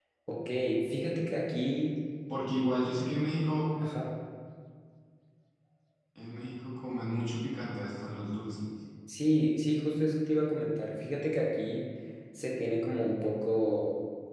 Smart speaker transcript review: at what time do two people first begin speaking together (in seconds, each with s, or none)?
none